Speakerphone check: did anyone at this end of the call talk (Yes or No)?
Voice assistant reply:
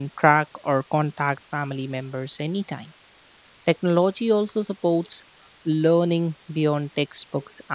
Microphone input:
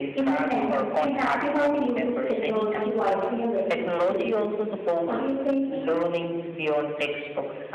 Yes